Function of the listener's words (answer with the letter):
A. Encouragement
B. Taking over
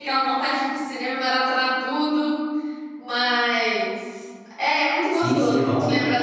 B